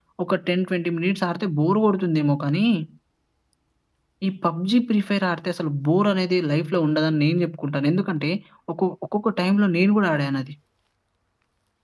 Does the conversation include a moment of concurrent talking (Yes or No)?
No